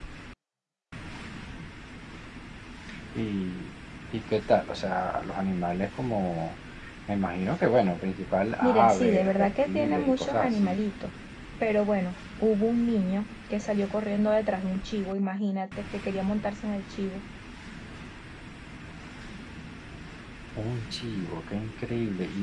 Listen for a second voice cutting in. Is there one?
Yes, from 8.6 s

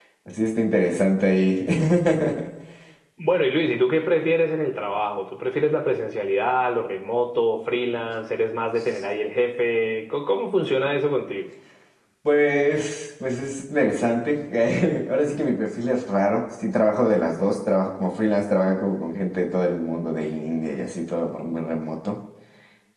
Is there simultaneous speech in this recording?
No

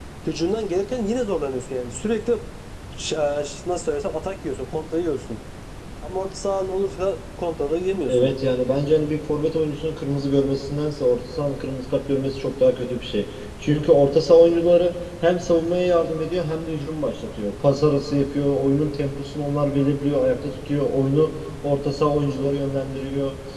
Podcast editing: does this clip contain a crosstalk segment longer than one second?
No

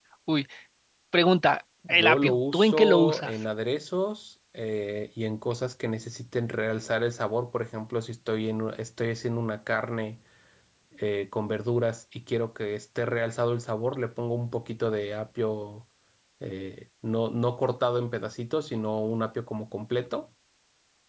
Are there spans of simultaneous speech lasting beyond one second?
Yes, from 1.9 s

